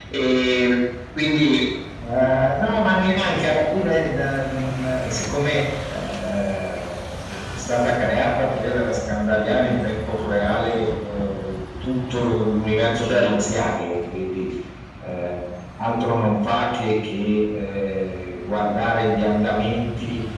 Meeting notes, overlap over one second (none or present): none